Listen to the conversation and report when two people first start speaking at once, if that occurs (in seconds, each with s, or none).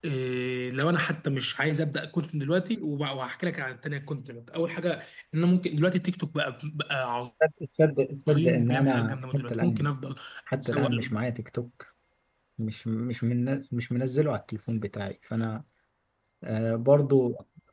8.3 s